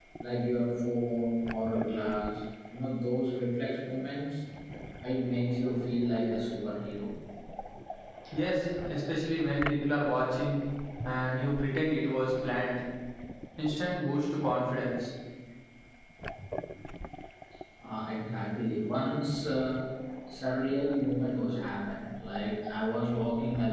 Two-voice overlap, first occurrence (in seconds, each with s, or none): none